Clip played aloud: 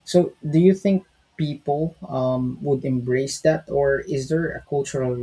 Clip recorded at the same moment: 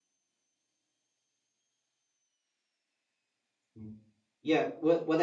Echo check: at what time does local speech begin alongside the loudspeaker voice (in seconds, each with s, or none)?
3.8 s